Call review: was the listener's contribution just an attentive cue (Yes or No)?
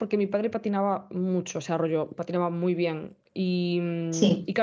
Yes